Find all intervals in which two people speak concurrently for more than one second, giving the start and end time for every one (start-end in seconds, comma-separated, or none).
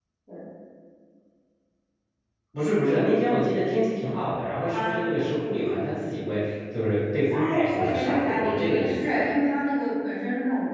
7.3-9.3